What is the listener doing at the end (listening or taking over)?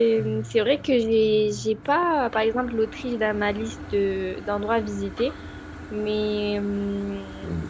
taking over